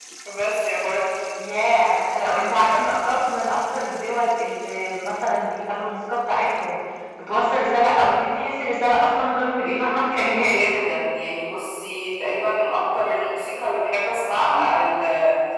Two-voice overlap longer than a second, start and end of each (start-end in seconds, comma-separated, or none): none